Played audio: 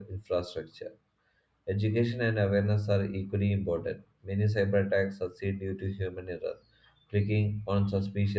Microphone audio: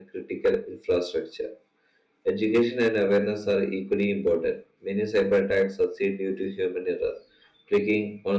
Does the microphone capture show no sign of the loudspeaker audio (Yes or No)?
No